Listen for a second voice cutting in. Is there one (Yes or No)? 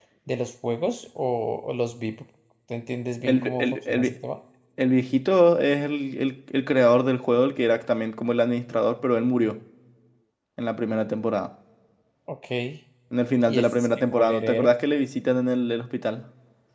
Yes